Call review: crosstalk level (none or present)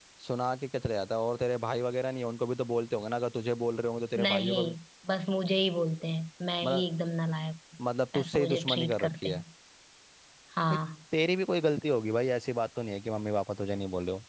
present